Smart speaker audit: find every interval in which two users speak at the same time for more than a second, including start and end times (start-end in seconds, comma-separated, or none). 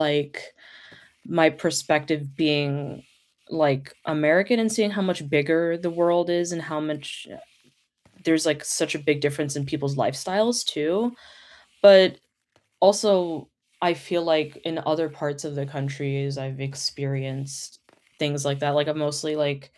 none